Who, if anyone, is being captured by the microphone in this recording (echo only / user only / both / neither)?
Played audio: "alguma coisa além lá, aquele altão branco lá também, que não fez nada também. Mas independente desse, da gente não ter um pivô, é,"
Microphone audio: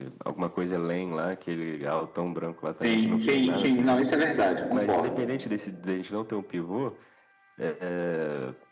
both